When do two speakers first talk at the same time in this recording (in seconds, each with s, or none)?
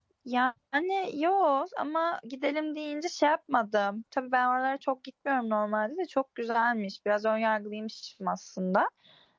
none